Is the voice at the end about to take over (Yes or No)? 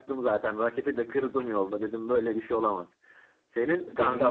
No